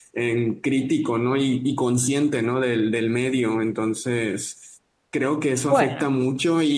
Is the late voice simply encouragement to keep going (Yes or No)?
Yes